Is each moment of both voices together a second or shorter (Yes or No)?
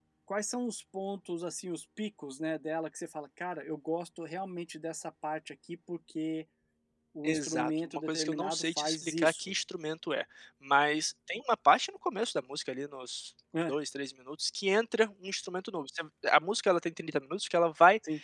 No